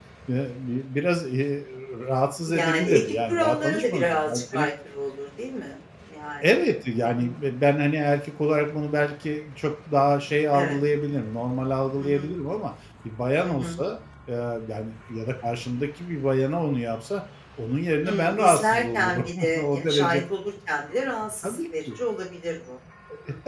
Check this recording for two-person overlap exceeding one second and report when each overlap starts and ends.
2.5-4.7, 18.1-20.2

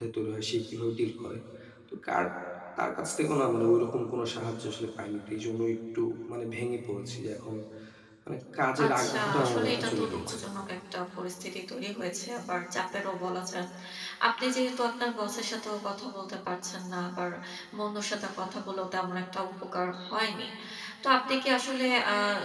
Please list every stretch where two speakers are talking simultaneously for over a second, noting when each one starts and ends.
8.8-10.3

